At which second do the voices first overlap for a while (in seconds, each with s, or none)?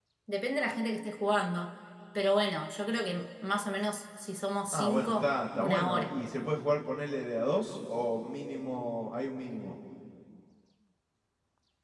4.7 s